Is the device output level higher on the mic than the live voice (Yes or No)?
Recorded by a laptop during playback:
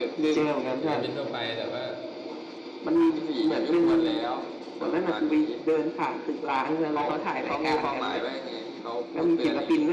Yes